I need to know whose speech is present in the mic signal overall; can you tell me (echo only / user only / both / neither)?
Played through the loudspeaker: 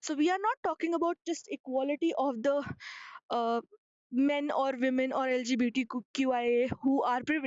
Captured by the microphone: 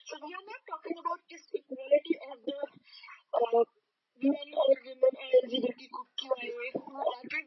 echo only